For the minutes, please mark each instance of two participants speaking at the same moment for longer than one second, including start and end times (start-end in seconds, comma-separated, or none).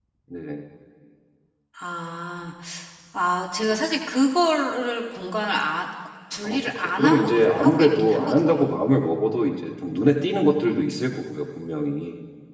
6.4-8.6